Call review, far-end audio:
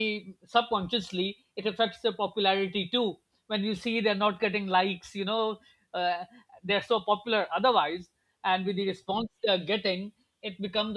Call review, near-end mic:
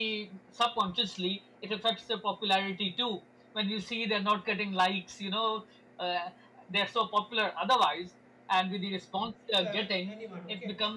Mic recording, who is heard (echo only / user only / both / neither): both